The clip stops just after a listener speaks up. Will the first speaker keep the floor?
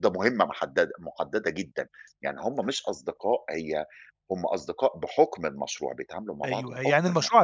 No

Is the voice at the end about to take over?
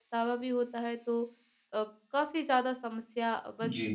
Yes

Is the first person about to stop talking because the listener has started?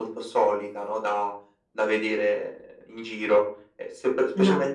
No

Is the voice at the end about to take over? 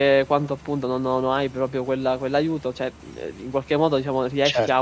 Yes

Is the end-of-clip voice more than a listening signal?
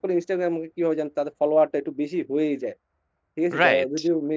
Yes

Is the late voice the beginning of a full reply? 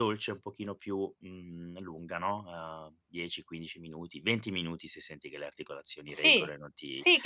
Yes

